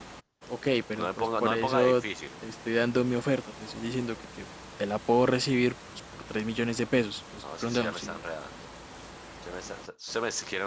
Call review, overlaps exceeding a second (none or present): present